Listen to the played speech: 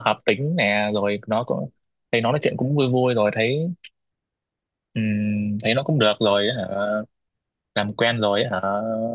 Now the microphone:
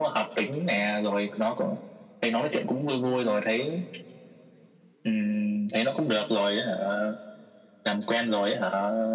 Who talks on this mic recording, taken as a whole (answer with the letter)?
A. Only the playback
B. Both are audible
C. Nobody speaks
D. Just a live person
A